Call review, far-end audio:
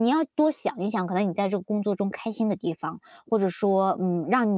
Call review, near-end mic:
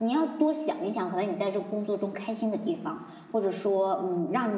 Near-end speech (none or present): none